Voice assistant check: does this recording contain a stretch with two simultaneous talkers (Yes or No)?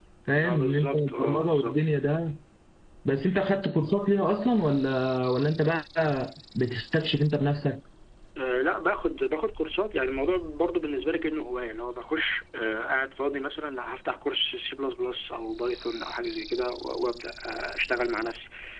Yes